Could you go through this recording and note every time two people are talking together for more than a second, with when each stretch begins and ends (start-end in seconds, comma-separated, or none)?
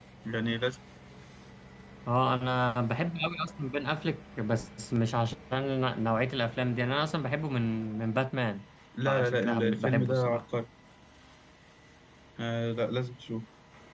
9.0-10.4